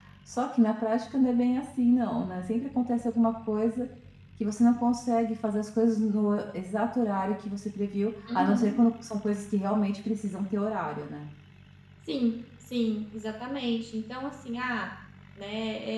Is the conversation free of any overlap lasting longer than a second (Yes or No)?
Yes